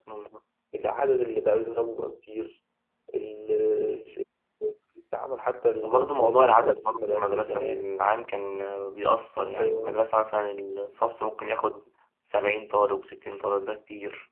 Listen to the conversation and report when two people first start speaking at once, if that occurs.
5.8 s

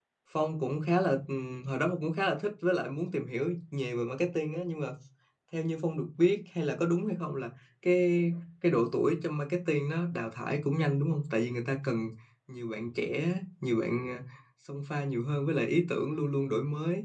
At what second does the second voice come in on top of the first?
none

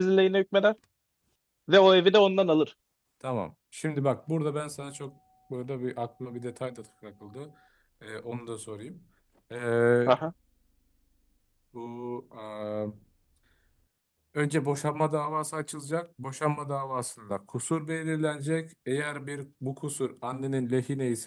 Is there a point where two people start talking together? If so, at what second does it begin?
none

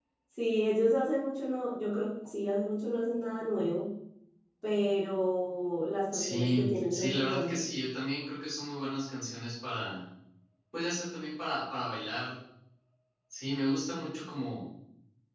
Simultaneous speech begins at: 6.1 s

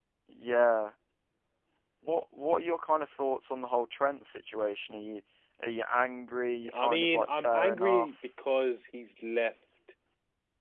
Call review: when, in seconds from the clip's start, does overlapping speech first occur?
6.6 s

